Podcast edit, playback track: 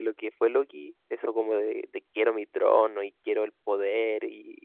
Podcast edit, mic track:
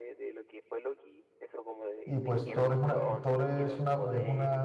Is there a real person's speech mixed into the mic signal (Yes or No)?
Yes